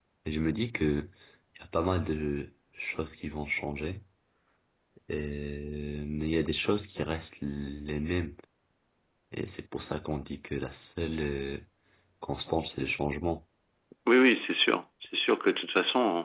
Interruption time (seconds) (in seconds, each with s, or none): none